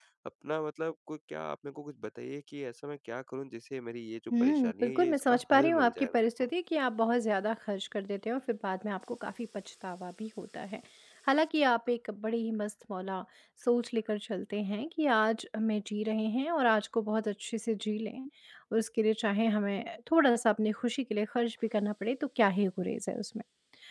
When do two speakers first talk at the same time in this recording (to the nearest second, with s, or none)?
4 s